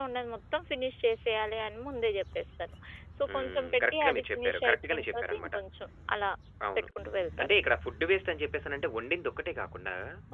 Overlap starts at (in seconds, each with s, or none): 3.3 s